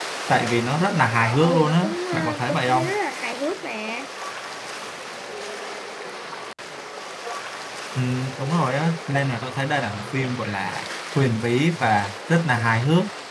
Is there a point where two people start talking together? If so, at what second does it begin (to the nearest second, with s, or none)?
1 s